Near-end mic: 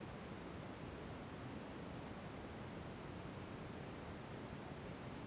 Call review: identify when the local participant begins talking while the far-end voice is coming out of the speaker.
none

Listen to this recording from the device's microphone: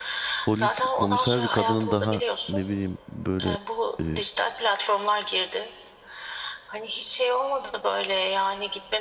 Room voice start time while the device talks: 0 s

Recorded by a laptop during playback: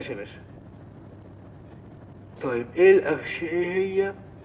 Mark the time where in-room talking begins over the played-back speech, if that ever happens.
none

